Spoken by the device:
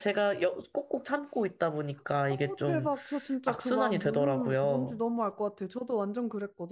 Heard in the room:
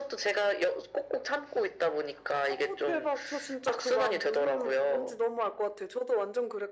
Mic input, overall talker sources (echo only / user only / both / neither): echo only